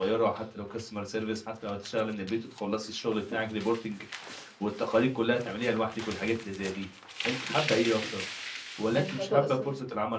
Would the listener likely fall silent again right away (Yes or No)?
Yes